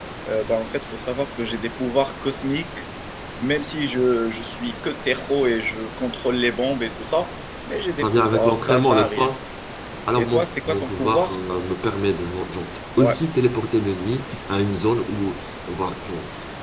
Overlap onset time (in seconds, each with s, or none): 8.0 s